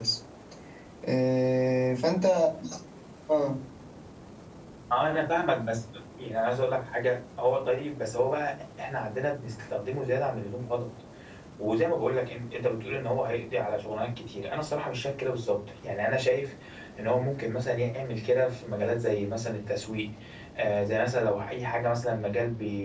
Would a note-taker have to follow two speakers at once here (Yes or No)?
No